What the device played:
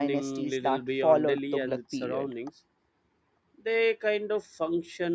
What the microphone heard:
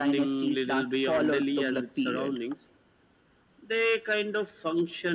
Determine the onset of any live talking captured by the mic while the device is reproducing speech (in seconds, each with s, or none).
none